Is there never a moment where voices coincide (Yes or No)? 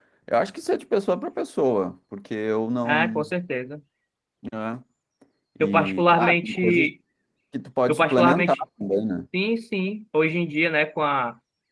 No